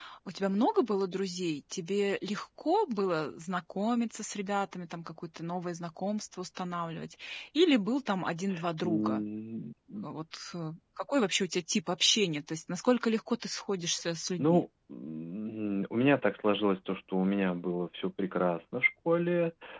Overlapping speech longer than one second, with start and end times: none

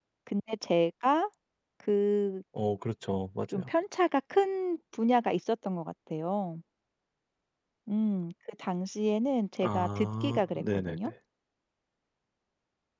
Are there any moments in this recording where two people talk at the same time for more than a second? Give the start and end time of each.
9.6-11.0

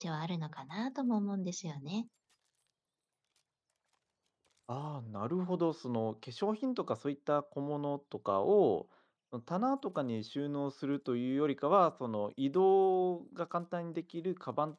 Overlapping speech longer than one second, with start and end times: none

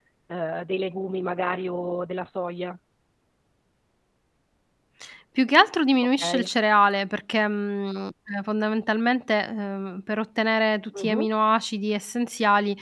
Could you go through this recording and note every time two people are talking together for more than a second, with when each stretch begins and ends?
none

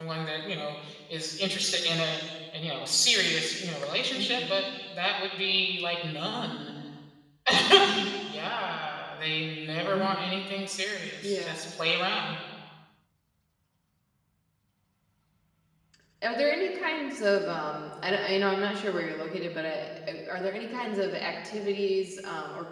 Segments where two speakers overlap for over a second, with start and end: none

